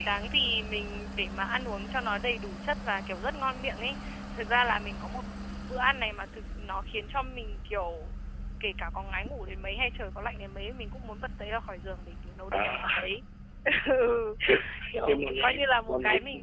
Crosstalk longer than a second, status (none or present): present